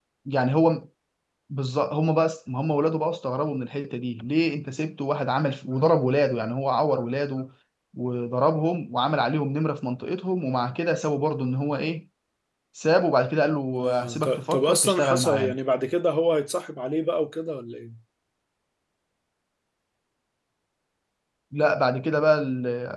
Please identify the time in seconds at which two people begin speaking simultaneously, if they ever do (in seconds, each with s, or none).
13.8 s